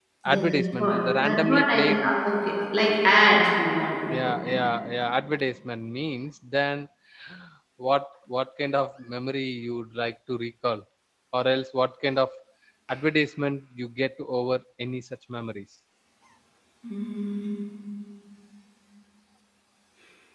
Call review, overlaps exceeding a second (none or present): present